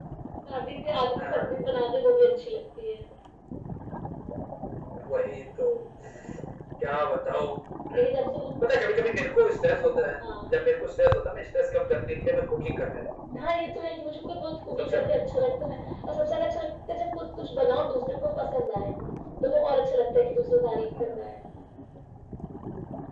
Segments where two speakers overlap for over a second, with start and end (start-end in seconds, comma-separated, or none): none